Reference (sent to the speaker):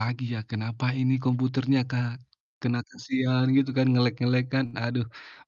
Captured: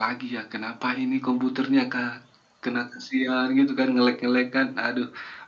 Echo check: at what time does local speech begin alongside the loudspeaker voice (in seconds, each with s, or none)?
none